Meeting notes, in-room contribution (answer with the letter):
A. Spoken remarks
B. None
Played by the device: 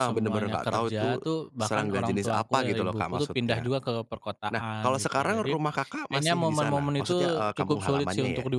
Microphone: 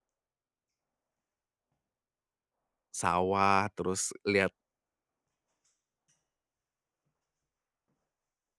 A